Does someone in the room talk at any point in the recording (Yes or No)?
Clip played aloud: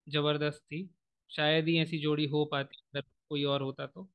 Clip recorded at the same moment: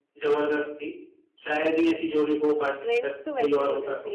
Yes